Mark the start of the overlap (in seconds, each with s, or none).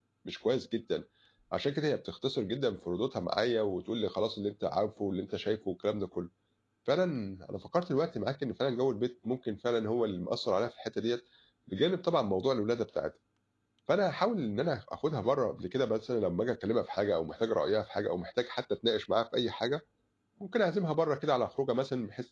none